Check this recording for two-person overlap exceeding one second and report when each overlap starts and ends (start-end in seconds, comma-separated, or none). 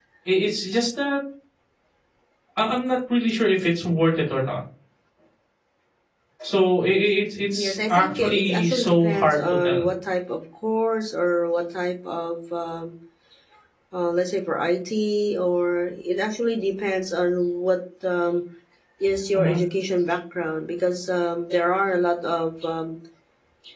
7.5-9.9